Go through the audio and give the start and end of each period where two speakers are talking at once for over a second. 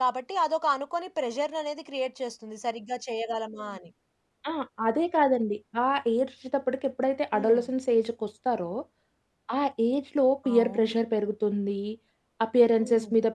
none

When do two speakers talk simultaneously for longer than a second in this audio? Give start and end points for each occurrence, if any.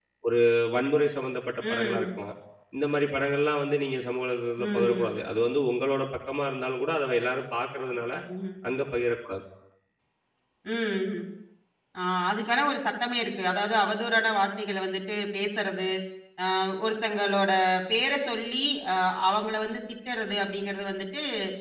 none

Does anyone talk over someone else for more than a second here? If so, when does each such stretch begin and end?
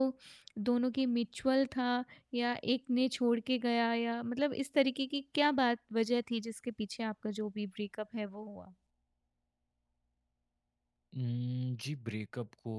none

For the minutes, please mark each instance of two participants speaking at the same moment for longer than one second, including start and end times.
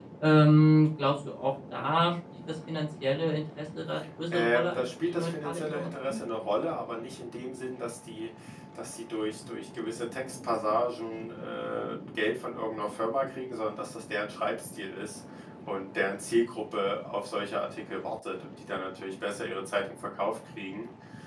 4.3-6.2

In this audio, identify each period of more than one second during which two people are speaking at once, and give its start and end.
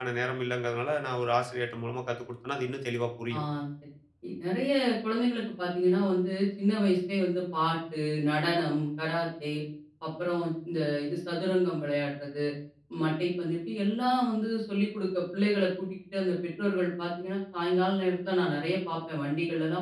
none

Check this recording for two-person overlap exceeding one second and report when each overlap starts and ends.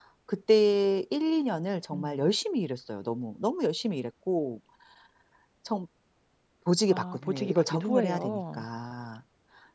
6.9-8.6

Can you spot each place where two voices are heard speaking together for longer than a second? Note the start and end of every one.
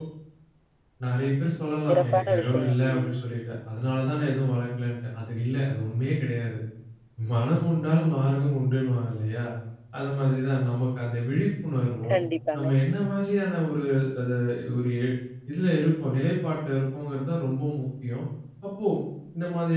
1.9-3.1

